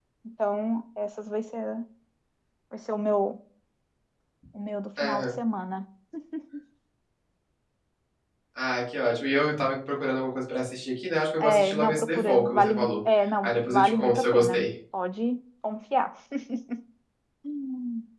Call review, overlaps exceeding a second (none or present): present